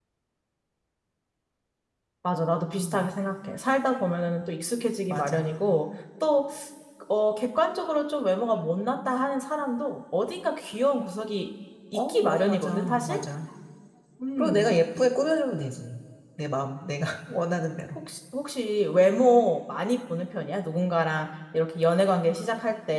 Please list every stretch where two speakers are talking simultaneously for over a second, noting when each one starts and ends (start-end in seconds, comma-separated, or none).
11.9-13.2